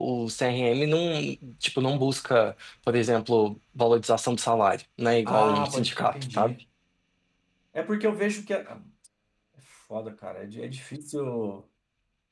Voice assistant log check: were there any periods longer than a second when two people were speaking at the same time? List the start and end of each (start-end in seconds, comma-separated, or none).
5.2-6.5